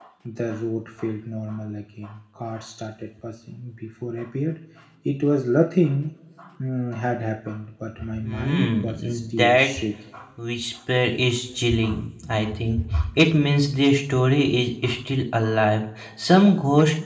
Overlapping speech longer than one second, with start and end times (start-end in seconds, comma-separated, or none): 8.2-9.7